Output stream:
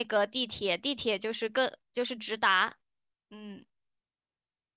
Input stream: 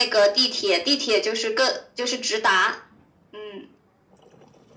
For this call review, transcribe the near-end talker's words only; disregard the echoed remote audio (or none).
none